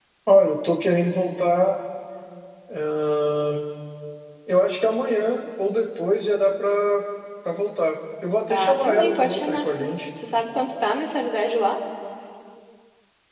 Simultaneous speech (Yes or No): Yes